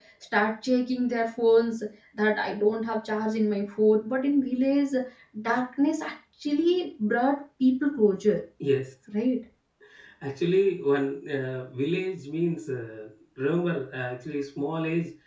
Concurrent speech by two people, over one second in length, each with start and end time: none

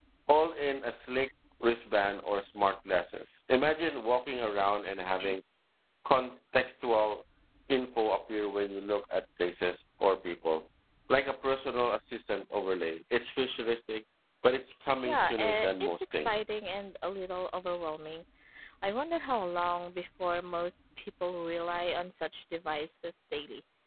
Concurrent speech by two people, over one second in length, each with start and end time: 15.1-16.3

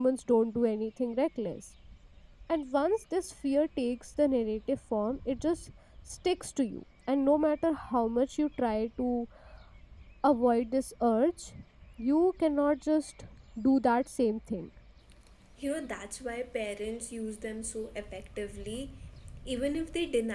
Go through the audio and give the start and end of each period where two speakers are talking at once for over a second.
none

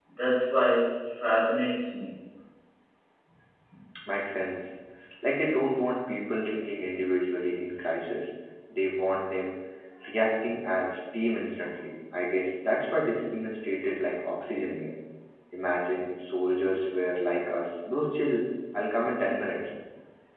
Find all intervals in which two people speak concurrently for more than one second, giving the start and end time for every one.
none

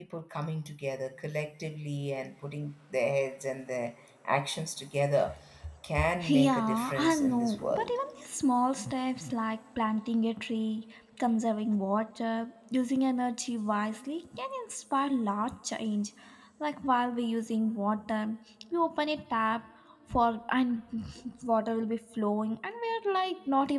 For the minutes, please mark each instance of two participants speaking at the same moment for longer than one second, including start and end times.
6.2-7.9

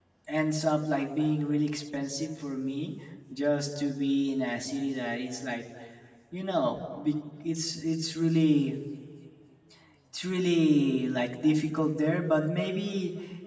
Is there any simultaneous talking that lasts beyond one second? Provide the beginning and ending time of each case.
none

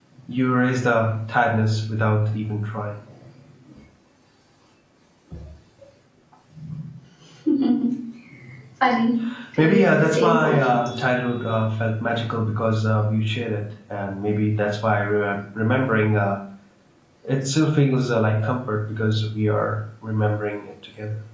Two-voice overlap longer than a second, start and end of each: 9.6-10.8

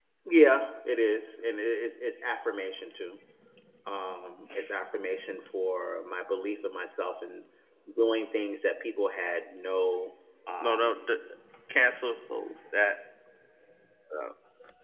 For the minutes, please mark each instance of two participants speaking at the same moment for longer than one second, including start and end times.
none

